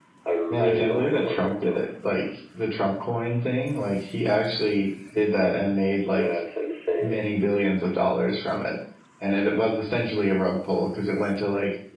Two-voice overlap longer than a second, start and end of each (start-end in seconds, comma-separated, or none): 0.5-1.8